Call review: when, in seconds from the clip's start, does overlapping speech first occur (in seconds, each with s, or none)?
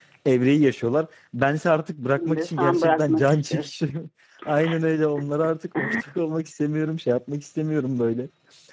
2.2 s